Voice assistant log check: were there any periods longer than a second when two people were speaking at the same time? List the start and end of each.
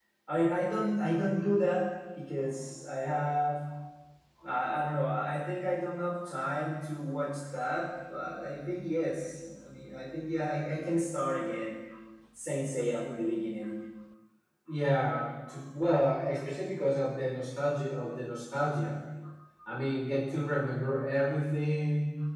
none

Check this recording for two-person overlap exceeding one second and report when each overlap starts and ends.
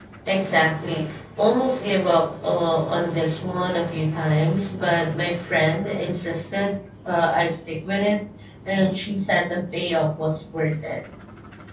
none

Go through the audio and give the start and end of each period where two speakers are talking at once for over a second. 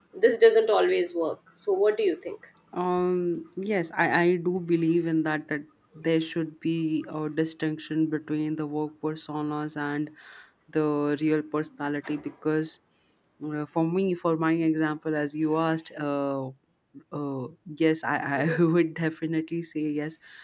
none

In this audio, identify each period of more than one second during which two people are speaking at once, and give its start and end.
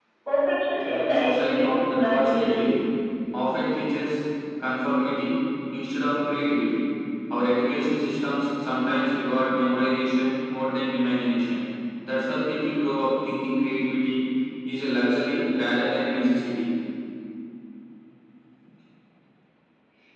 0.8-2.8

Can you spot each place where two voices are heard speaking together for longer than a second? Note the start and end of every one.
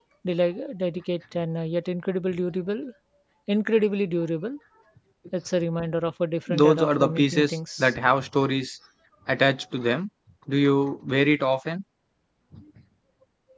6.5-8.0

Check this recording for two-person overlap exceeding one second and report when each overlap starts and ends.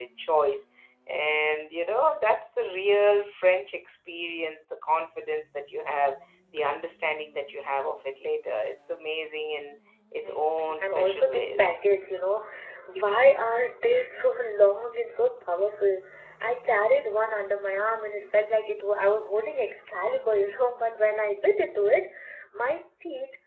10.2-11.8

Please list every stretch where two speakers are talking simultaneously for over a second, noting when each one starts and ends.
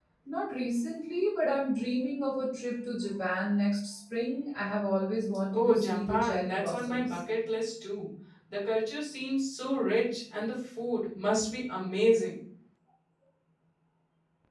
5.5-7.2

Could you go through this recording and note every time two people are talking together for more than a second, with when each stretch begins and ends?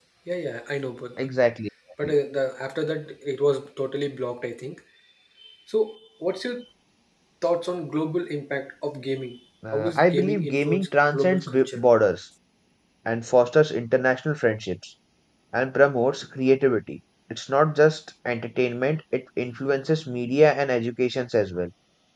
9.7-11.8

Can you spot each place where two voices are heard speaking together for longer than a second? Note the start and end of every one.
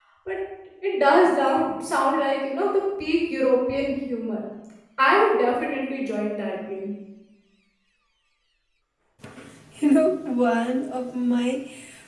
none

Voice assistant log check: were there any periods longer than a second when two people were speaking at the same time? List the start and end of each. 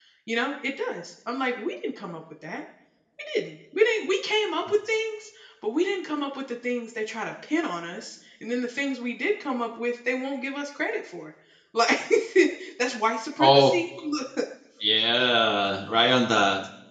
none

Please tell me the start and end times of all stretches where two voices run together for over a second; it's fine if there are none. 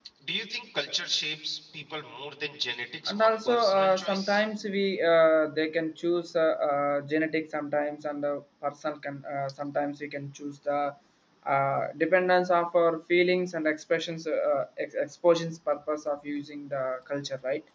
3.1-4.4

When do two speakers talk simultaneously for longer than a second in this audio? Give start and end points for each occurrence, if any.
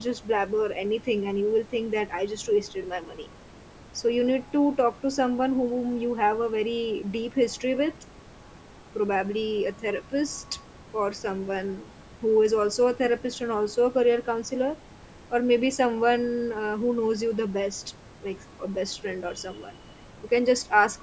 none

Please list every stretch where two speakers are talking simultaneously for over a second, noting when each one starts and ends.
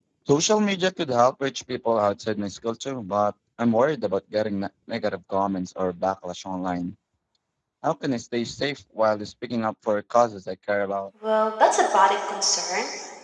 none

